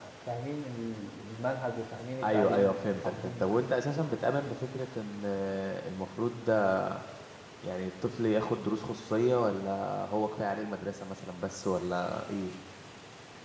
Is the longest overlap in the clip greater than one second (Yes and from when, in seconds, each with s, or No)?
Yes, from 2.2 s